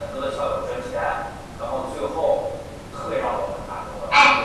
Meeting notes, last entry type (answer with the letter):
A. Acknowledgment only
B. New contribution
B